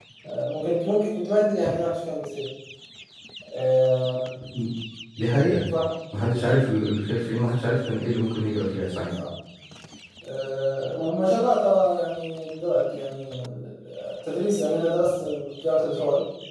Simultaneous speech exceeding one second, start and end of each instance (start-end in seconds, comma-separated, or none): none